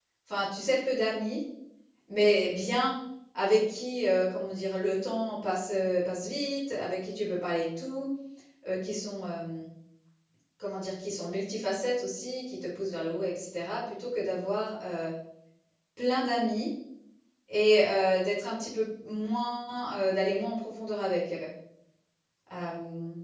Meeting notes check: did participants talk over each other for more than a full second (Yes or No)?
No